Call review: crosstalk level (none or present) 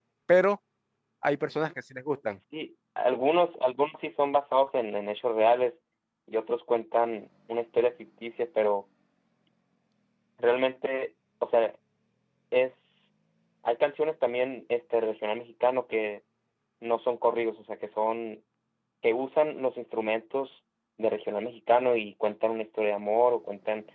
none